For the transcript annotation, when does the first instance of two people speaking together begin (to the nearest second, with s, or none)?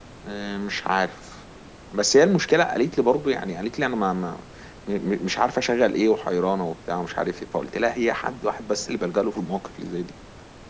none